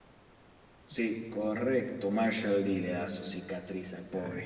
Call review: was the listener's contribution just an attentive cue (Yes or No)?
No